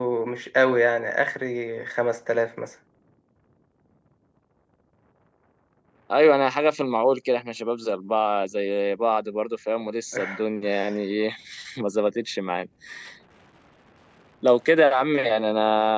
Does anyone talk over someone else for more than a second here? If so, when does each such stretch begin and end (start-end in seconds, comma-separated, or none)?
none